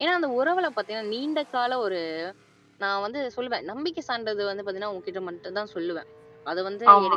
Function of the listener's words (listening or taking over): listening